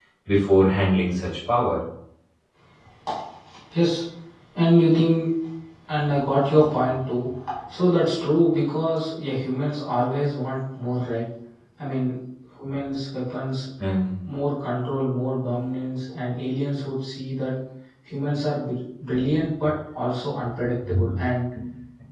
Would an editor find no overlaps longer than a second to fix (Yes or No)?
Yes